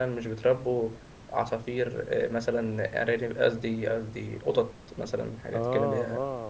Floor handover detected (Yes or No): Yes